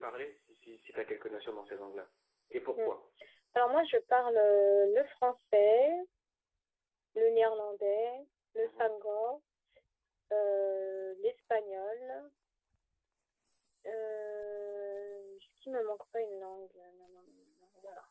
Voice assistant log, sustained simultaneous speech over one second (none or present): none